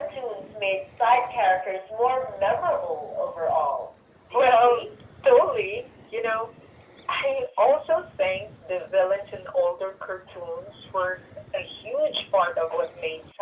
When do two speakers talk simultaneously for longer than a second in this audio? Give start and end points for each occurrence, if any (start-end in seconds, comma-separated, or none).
none